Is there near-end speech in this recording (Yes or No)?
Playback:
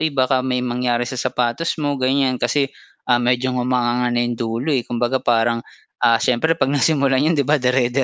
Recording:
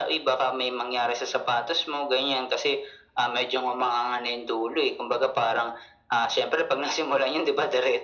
No